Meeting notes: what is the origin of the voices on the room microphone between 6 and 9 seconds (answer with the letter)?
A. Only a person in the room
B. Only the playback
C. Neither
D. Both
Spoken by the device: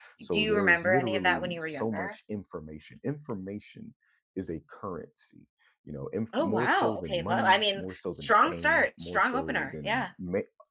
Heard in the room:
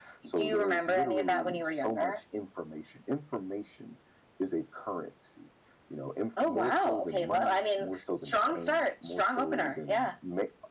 B